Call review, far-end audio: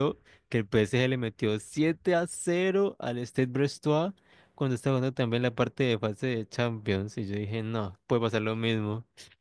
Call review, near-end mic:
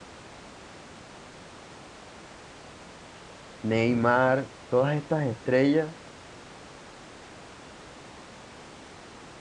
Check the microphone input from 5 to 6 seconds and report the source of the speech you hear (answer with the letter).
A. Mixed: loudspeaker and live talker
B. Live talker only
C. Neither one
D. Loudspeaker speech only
B